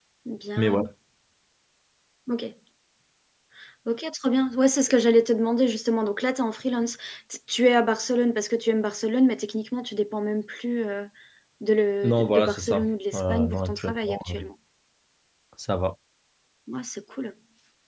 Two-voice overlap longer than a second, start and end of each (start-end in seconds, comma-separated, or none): 12.0-14.3